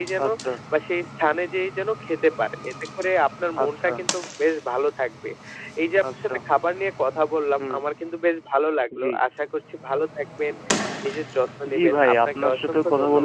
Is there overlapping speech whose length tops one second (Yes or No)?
Yes